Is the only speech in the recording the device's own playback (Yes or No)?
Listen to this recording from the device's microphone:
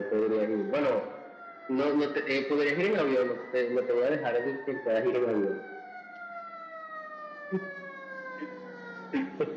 Yes